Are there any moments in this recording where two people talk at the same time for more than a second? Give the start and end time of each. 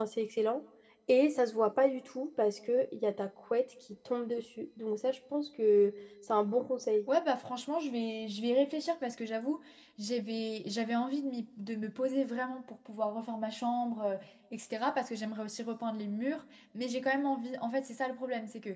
none

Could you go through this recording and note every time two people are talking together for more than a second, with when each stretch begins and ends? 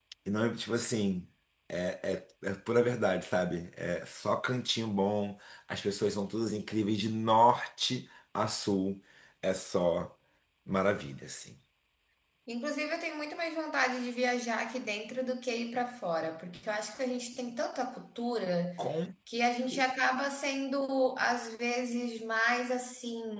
none

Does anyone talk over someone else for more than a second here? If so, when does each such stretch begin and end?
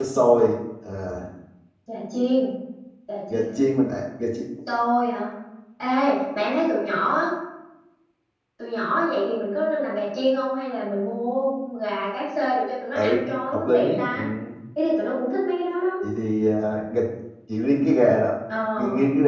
12.9-14.2

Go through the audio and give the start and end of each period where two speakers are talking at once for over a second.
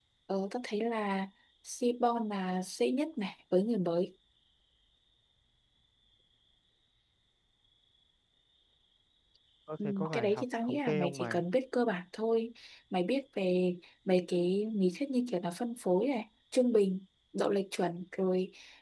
9.8-11.4

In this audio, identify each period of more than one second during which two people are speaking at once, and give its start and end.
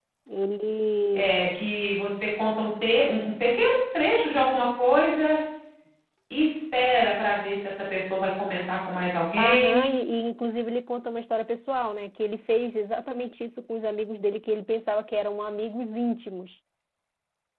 none

